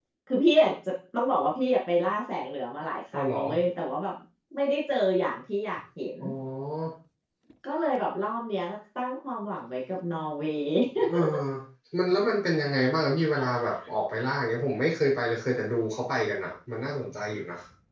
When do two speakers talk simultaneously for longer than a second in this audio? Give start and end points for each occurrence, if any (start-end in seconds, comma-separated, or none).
none